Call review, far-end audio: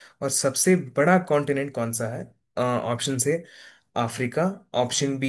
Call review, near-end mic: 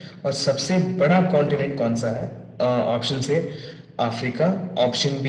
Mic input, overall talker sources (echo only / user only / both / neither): echo only